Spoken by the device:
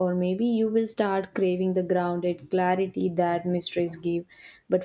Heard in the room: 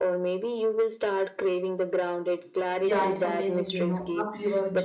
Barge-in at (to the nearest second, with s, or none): 3 s